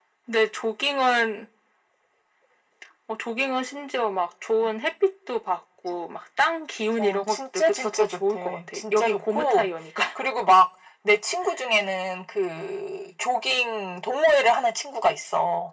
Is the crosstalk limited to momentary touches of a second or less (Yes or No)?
No